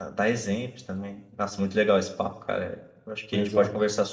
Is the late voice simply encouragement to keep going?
Yes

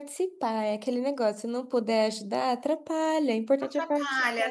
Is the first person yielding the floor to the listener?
Yes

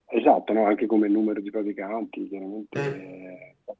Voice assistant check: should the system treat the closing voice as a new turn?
No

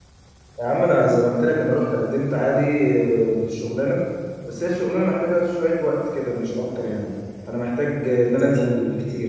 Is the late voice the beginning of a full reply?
No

